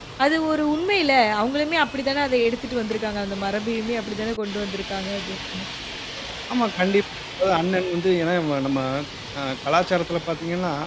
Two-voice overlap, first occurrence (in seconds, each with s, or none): none